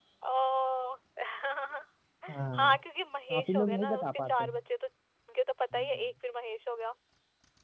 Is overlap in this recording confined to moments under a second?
No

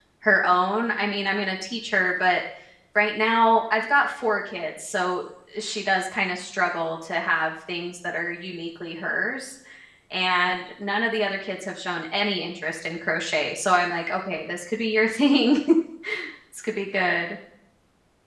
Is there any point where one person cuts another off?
No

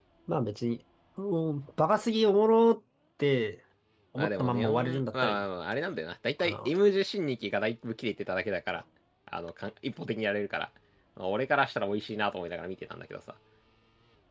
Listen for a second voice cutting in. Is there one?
Yes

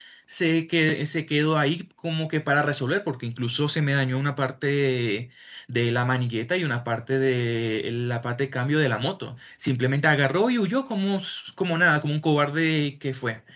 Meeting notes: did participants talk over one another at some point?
No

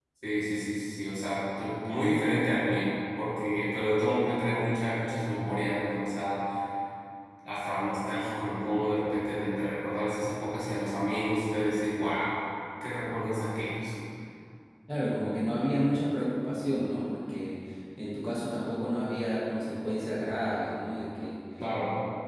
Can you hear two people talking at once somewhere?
No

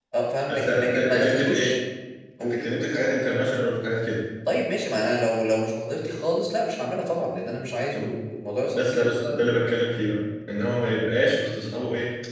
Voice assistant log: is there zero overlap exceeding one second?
No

